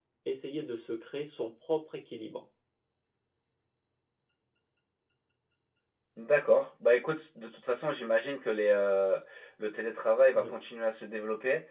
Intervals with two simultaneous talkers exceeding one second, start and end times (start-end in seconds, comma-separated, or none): none